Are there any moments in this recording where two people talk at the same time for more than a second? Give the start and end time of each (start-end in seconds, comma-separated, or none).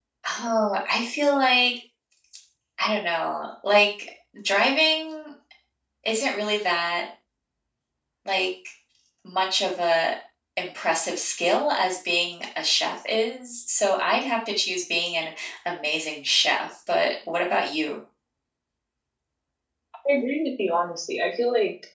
none